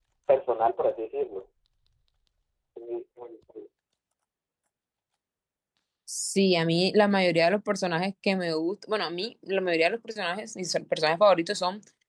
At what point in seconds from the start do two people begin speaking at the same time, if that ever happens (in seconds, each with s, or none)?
none